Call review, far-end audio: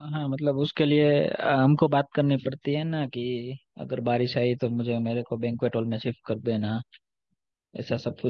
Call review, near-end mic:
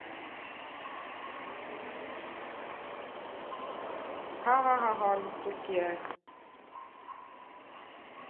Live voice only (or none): हाँ हाँ हाँ हॉल बुक किया है